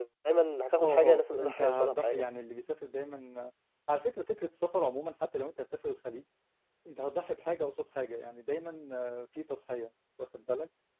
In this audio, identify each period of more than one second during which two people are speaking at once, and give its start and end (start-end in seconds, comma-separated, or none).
0.8-2.3